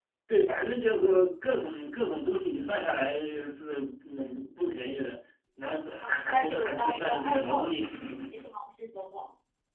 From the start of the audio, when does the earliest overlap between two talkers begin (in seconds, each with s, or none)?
6.0 s